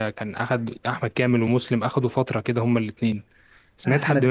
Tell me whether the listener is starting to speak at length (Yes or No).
Yes